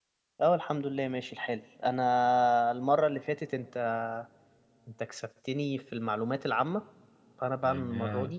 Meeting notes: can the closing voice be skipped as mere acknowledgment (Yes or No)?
Yes